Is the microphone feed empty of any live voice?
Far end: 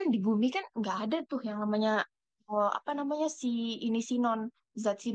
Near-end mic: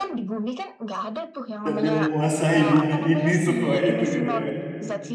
No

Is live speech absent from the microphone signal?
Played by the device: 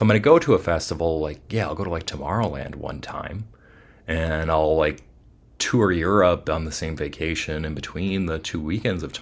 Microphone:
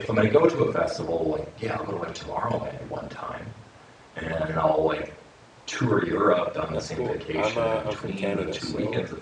No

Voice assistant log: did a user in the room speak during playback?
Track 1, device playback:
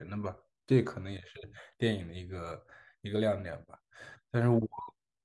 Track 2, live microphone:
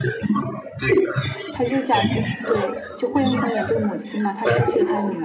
Yes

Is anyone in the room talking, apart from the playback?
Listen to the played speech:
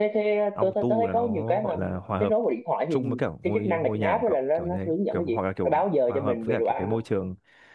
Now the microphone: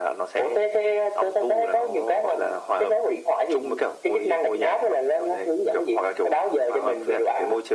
No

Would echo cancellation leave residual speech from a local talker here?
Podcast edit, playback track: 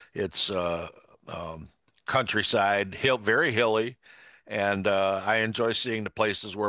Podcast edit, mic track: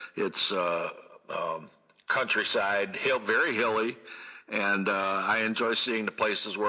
No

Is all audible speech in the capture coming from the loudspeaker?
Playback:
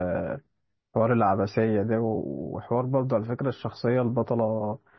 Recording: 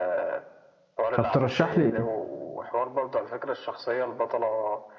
No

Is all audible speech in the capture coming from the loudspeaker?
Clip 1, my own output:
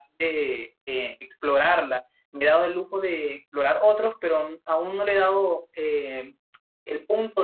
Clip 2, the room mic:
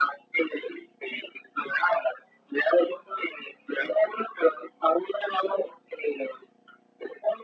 Yes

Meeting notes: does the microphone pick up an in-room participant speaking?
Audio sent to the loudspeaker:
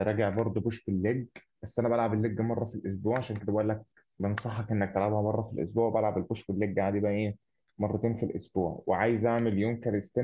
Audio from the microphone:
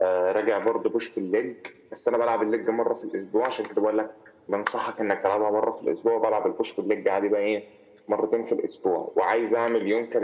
No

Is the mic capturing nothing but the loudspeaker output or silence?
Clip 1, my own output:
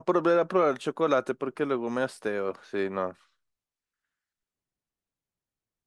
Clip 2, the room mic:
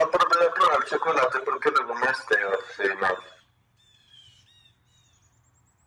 Yes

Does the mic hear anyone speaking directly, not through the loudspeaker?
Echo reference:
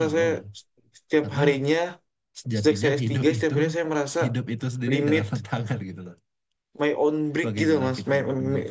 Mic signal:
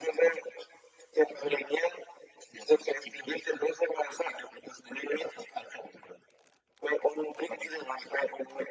No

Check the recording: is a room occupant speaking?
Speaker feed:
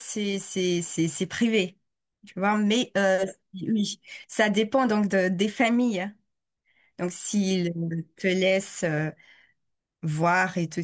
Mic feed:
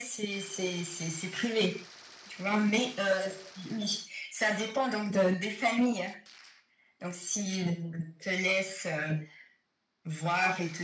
No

